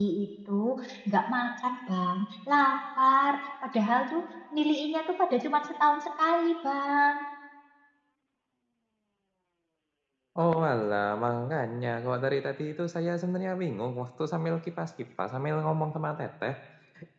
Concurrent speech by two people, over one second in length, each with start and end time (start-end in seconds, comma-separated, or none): none